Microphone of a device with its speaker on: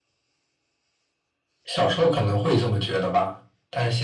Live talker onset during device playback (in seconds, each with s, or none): none